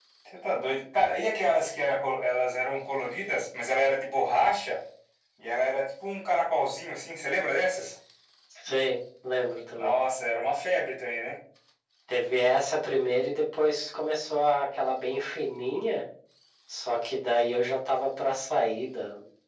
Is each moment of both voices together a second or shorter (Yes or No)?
Yes